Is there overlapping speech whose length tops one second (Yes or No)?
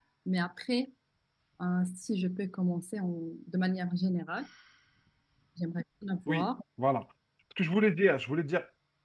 No